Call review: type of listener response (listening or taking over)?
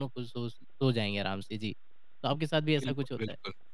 taking over